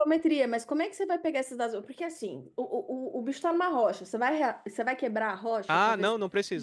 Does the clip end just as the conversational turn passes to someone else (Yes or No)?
Yes